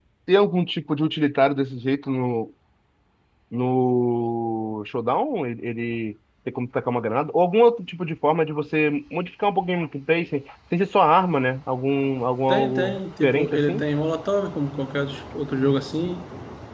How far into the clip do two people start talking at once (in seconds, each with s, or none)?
12.5 s